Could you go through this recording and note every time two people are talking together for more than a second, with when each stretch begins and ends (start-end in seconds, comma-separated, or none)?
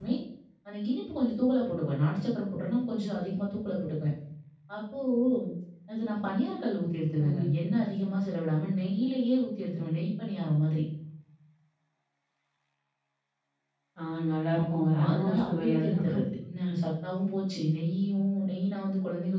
14.6-16.2